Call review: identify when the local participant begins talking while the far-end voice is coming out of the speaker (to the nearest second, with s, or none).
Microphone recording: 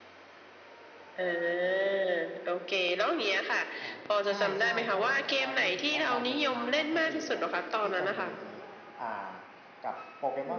4 s